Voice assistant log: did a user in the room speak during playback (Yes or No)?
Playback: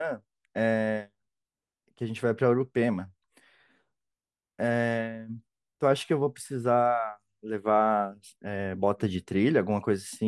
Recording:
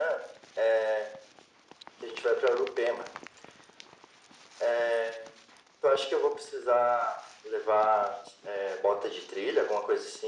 No